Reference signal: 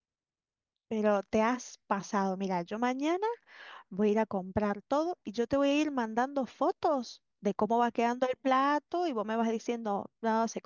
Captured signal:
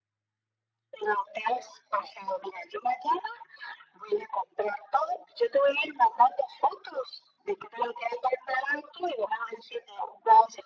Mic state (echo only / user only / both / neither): echo only